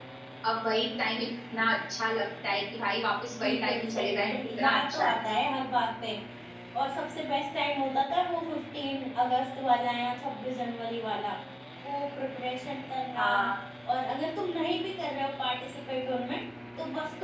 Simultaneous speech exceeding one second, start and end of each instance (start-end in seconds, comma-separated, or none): 3.4-5.1